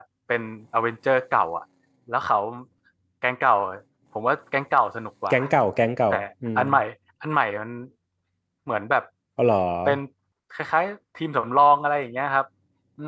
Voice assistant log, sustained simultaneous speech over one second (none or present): none